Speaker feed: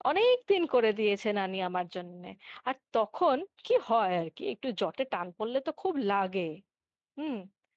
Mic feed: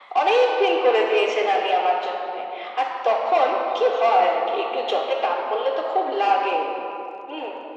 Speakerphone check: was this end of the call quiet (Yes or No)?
Yes